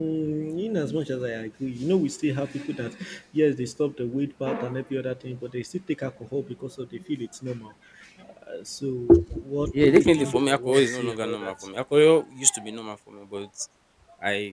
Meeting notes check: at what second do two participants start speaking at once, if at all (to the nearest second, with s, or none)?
10 s